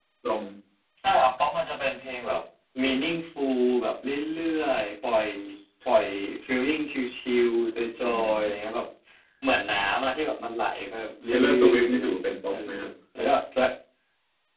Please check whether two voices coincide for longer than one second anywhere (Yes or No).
Yes